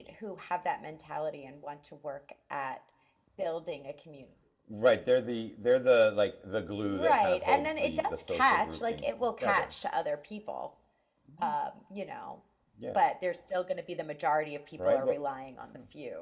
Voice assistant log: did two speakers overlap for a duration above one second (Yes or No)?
Yes